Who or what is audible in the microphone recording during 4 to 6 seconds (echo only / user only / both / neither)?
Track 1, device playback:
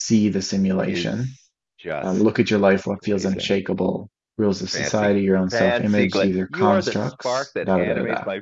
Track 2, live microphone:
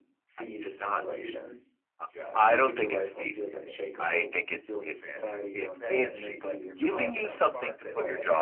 both